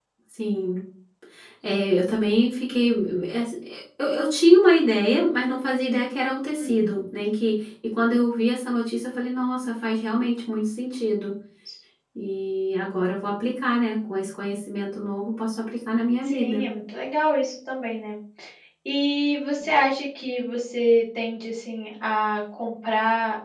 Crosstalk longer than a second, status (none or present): none